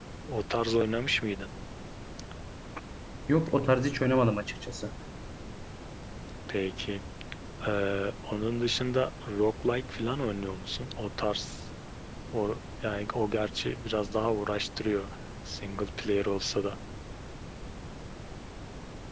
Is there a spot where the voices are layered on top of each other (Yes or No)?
No